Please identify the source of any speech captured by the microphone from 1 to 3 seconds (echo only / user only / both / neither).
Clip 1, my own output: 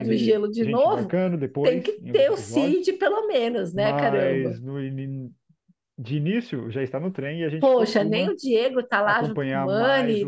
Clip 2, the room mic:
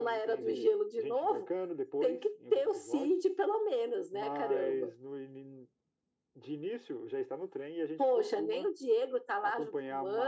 echo only